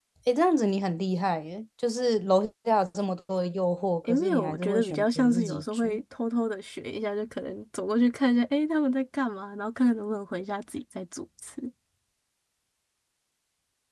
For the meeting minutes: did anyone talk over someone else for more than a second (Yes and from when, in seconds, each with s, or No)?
Yes, from 4.1 s